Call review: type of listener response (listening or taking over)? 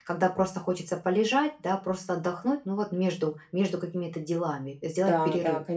taking over